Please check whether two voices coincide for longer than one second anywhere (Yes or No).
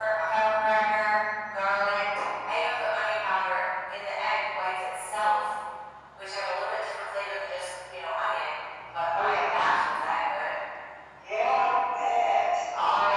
No